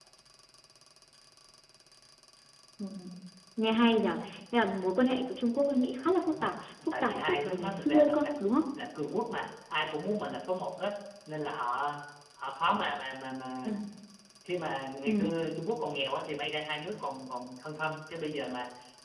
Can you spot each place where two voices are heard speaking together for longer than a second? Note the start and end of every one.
6.9-8.3

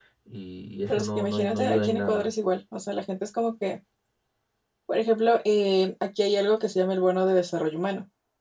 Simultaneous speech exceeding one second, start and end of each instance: 0.9-2.3

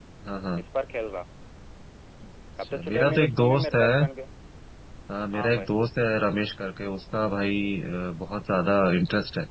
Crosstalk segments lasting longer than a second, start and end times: 2.6-4.0

